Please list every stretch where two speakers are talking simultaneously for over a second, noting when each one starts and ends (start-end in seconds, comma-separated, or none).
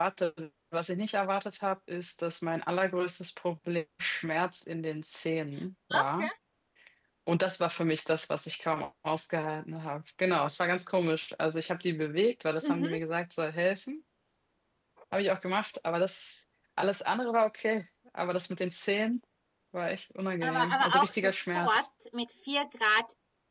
20.4-21.9